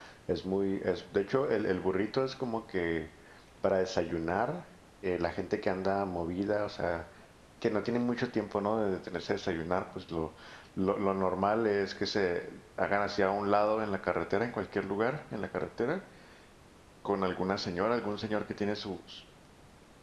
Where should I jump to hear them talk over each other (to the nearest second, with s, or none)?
none